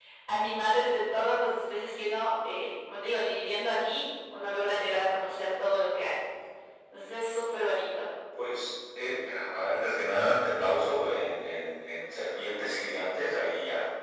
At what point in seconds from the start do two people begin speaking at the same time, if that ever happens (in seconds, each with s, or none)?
none